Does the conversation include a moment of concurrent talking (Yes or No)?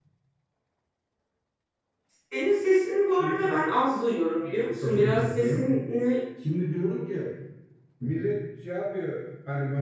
Yes